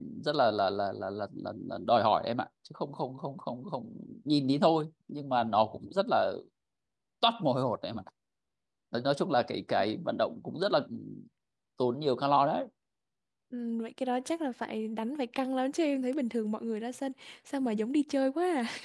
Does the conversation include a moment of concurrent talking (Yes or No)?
No